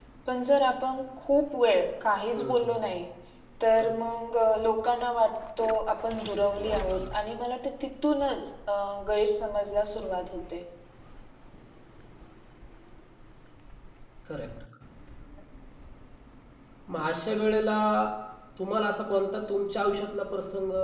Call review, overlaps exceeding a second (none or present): none